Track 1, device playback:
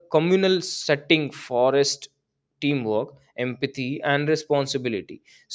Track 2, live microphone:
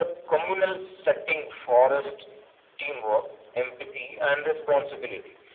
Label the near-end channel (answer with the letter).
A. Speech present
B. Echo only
B